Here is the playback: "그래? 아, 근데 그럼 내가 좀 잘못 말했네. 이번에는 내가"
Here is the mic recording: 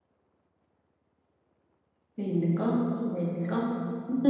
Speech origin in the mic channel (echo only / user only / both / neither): user only